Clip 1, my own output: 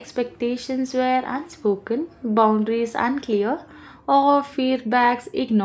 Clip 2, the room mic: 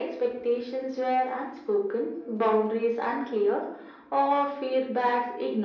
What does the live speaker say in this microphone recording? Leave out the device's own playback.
none

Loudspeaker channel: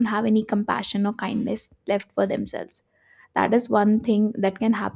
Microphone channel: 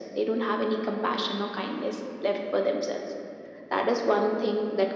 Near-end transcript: none

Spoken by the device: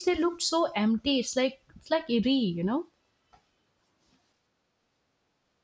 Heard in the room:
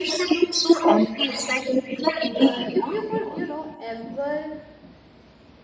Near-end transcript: uh, if you could, you know, ever

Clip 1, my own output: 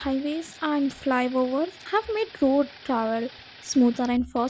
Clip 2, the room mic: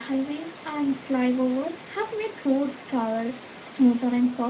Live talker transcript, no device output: none

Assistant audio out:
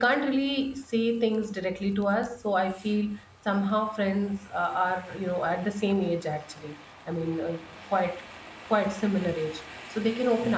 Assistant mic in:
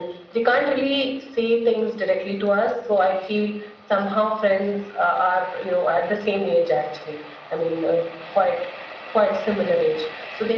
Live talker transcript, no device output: none

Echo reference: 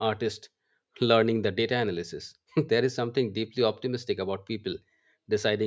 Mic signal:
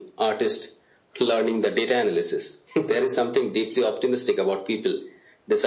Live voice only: none

